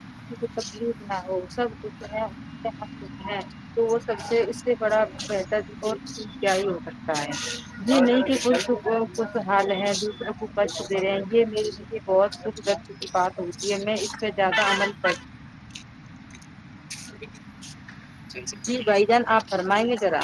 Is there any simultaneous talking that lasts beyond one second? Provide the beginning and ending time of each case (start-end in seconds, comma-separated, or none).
none